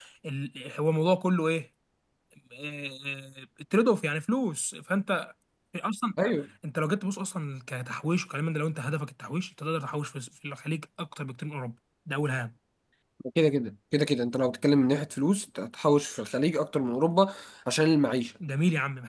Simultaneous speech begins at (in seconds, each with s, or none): none